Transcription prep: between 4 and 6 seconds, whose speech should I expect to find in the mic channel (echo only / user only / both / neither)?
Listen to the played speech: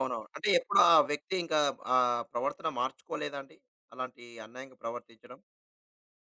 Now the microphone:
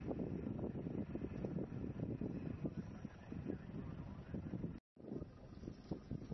neither